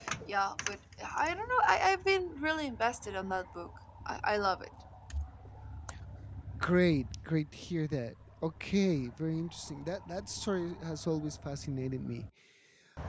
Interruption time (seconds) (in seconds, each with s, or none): none